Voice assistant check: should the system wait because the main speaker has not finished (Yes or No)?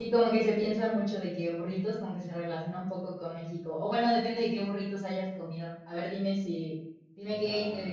Yes